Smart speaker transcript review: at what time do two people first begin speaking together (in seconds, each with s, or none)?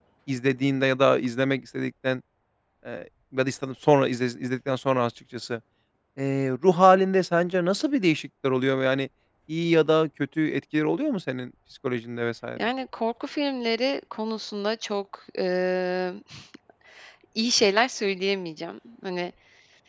none